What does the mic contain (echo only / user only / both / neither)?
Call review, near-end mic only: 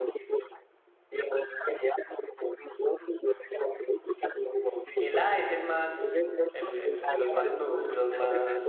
both